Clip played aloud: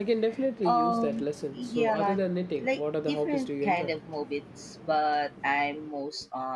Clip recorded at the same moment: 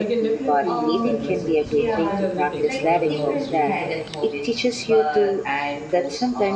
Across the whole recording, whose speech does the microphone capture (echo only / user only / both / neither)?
both